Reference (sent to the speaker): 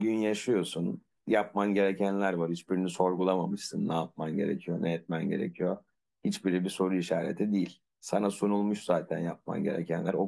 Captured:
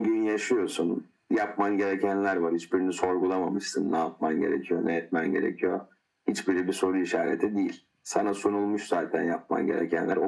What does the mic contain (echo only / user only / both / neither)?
echo only